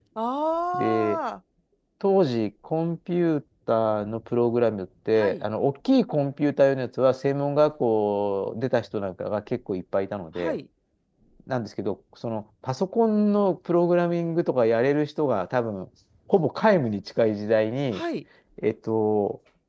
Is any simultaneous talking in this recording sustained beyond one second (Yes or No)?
No